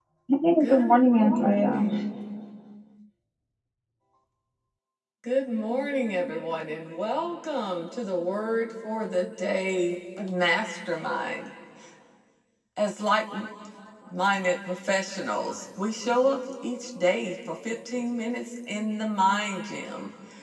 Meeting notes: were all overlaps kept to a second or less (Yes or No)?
No